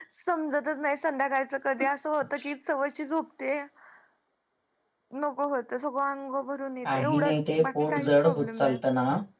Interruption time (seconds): 6.8 s

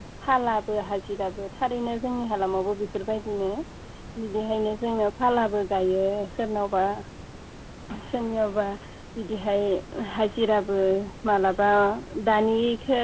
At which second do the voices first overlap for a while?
none

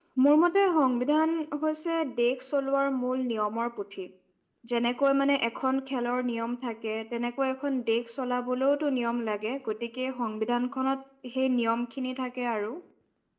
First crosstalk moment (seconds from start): none

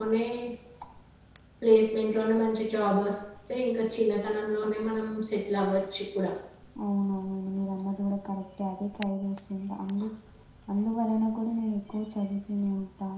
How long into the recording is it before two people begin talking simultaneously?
none

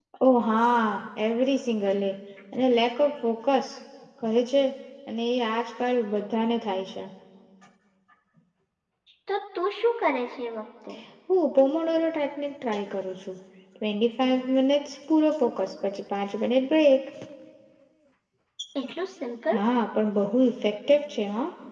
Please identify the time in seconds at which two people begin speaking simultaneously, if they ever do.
none

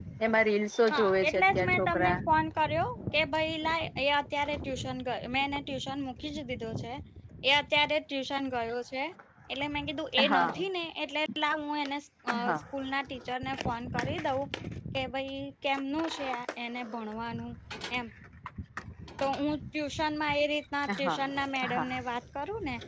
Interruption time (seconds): 0.9 s

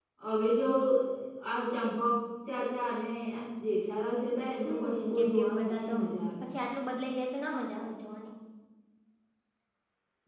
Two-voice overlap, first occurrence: 4.6 s

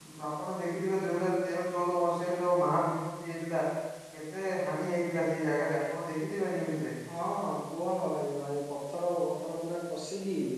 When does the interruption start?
none

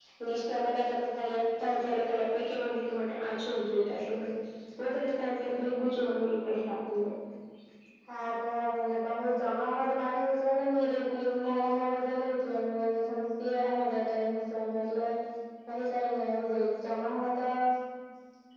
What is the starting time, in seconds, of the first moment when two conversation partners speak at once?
none

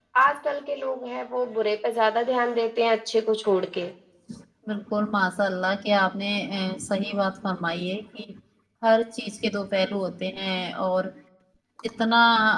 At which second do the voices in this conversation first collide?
none

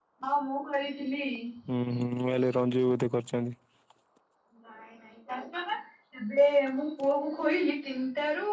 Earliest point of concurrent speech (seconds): none

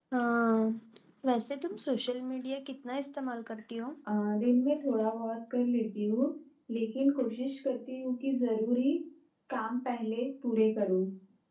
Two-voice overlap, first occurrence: none

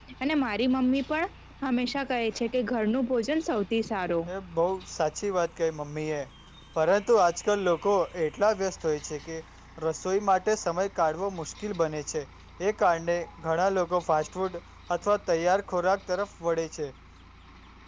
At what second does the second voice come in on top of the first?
none

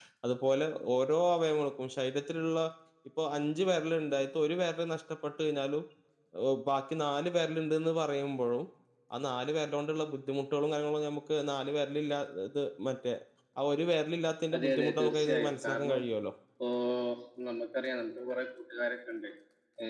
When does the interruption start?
14.5 s

